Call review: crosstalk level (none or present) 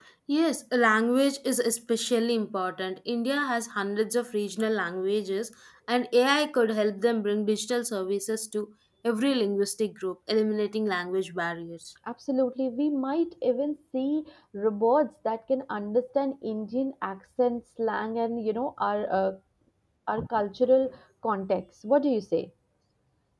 none